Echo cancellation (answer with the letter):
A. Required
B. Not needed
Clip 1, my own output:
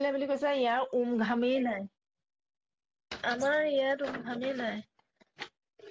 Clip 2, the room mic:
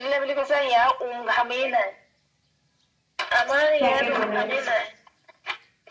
A